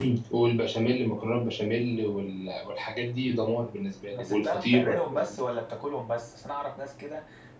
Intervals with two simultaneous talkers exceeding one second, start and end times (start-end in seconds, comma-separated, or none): 4.1-5.4